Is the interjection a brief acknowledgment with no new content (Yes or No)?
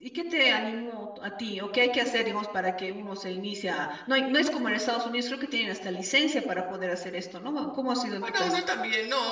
No